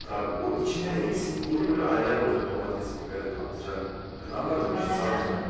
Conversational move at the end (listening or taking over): taking over